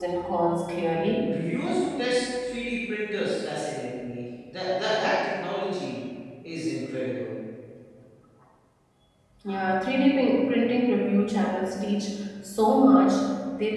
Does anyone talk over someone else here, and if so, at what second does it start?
none

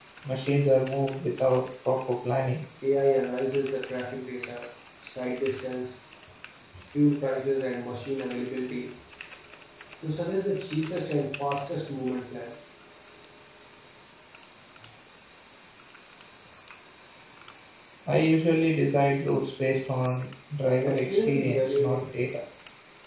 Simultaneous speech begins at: 21 s

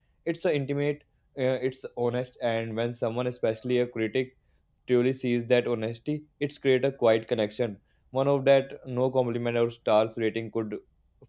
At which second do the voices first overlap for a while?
none

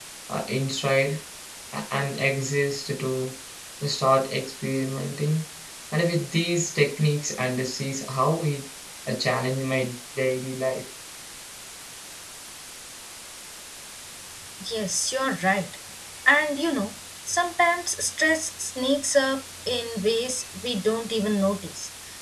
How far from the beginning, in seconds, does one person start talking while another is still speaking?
none

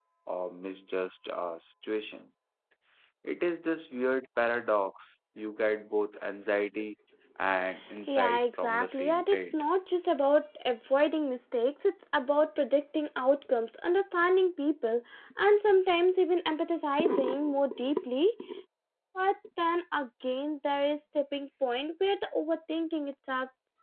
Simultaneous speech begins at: 8 s

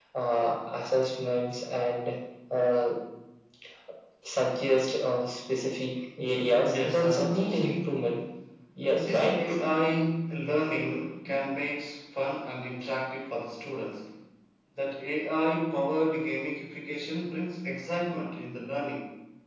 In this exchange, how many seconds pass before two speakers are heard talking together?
7 s

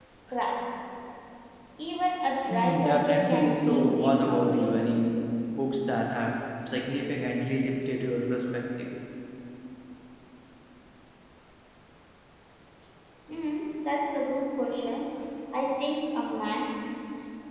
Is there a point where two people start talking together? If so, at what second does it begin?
3 s

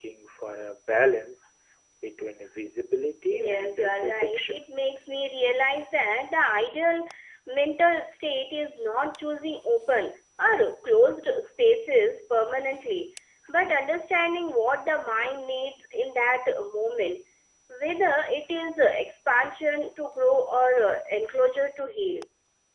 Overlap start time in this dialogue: 3 s

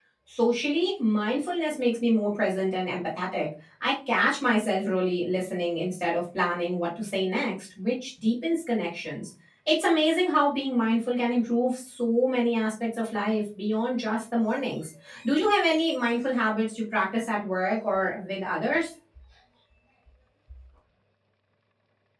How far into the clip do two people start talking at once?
none

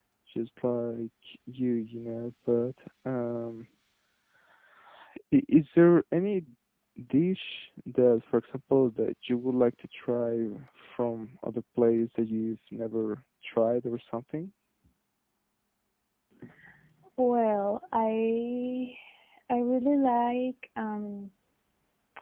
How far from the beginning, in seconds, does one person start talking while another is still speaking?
none

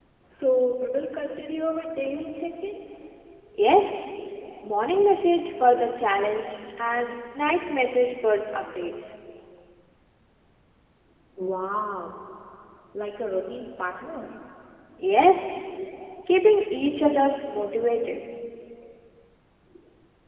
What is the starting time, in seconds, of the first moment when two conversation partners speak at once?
none

